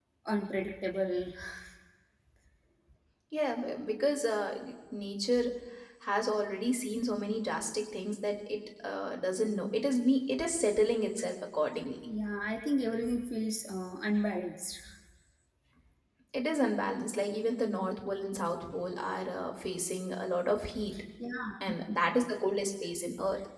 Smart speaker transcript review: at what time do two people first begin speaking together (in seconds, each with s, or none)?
none